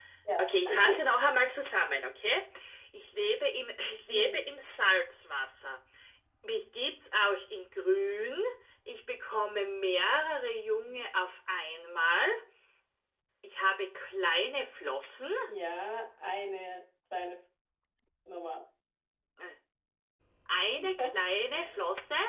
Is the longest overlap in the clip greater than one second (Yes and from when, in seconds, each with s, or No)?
No